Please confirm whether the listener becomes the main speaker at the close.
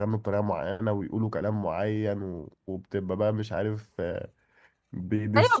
Yes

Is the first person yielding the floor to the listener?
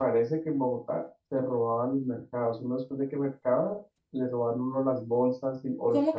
No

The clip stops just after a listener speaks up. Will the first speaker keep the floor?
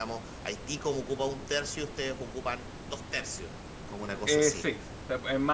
No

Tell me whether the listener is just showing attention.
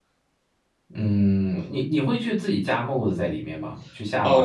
No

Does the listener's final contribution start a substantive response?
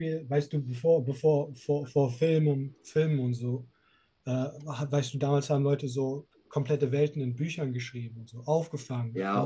Yes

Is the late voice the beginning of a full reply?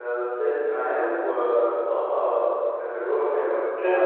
No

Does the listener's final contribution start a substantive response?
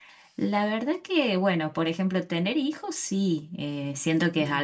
No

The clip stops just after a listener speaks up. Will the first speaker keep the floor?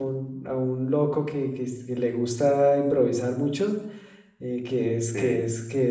Yes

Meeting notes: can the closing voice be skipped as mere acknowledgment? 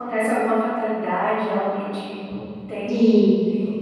No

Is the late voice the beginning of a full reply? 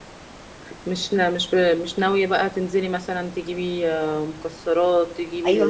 Yes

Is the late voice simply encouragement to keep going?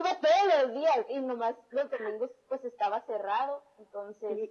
No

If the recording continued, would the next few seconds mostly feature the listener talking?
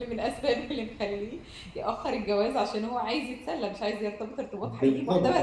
Yes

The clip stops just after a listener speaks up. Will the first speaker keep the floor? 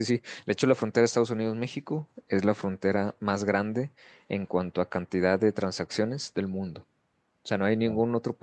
Yes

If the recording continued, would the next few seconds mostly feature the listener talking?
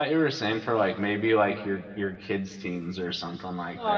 Yes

